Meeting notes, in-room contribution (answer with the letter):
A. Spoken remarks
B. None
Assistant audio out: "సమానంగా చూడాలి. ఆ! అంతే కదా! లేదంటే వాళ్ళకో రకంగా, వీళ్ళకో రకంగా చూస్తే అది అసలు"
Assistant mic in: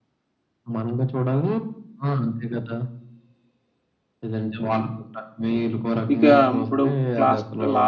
A